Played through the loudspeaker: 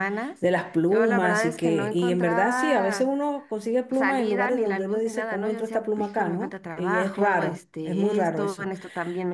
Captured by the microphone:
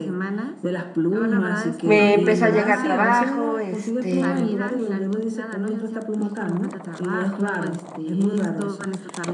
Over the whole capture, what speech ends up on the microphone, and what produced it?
both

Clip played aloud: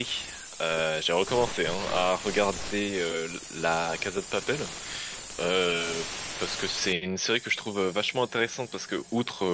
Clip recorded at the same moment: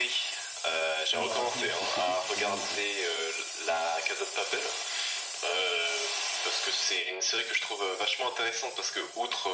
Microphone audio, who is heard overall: both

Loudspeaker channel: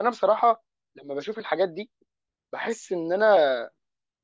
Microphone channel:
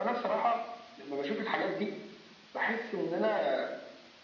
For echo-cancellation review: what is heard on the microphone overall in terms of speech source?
echo only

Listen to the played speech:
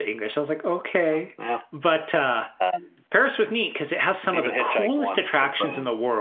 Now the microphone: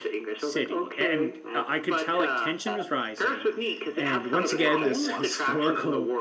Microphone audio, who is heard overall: both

